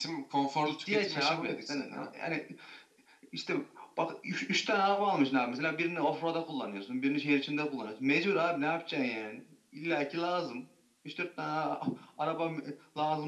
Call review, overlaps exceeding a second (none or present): present